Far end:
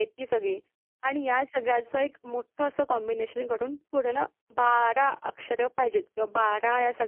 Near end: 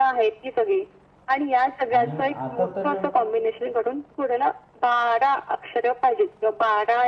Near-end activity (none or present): present